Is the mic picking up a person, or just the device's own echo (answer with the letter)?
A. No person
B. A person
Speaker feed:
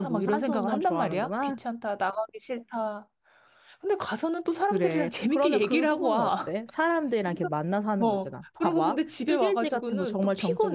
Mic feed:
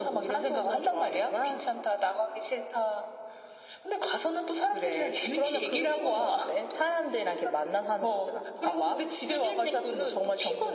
A